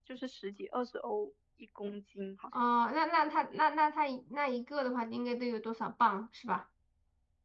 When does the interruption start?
none

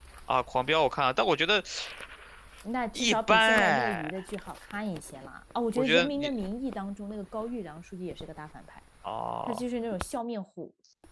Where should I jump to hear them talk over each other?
3.0 s

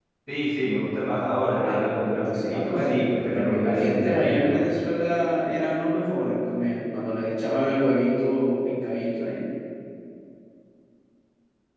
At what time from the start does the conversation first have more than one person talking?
1.5 s

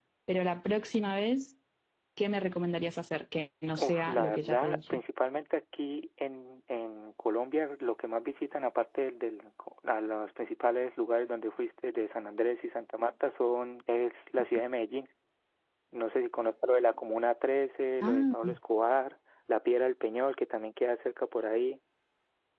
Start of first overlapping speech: 3.8 s

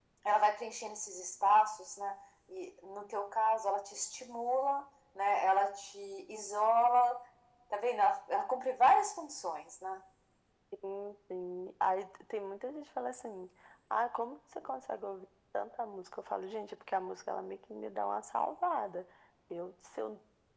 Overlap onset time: none

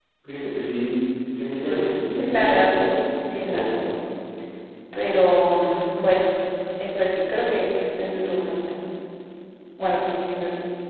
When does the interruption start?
1.4 s

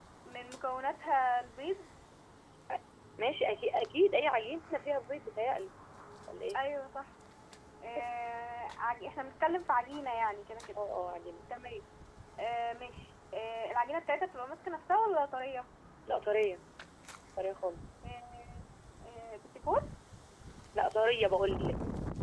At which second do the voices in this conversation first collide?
none

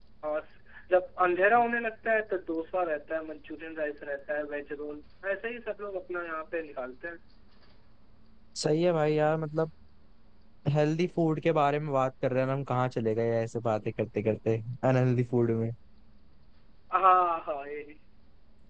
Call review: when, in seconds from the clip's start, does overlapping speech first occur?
none

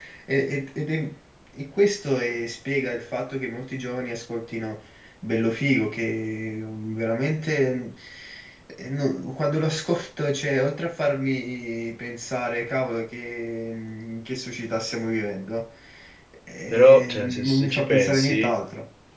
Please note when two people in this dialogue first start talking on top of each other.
16.7 s

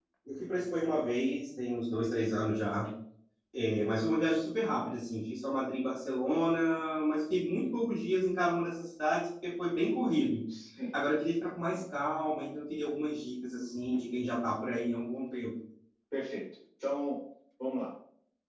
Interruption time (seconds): none

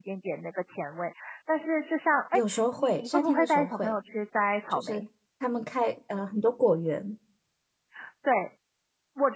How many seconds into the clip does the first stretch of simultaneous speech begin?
2.3 s

